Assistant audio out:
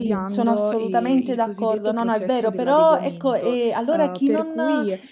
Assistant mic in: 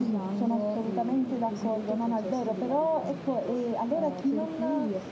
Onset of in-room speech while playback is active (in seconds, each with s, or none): none